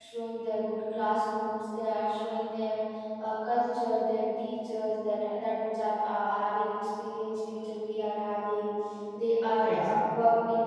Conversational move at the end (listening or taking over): listening